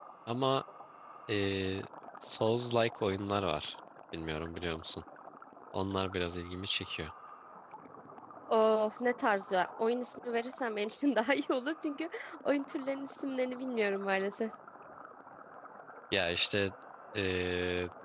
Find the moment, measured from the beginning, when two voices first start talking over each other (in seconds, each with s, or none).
none